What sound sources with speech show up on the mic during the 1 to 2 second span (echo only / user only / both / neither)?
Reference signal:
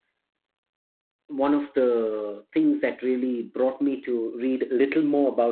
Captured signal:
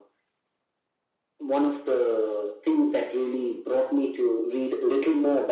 echo only